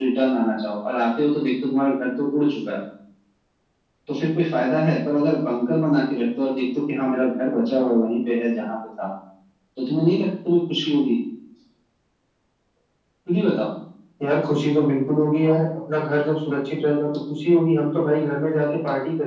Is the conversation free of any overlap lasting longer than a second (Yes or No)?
Yes